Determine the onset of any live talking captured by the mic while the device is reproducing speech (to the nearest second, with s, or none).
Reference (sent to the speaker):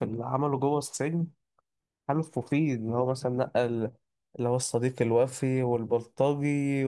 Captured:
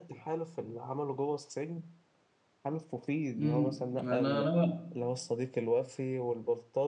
3 s